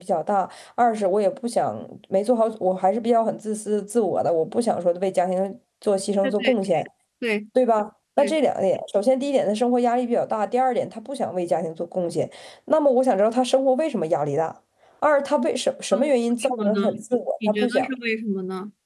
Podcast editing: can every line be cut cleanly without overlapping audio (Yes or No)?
No